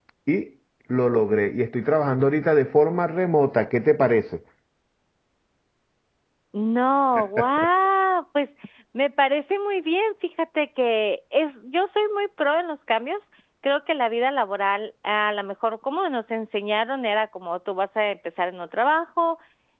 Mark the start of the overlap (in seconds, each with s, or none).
none